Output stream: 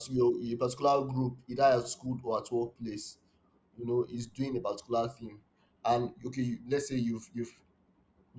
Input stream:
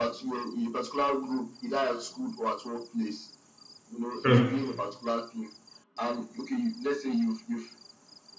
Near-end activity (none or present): present